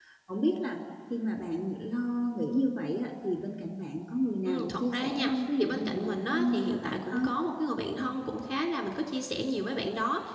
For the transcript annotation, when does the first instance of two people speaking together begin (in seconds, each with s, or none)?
4.4 s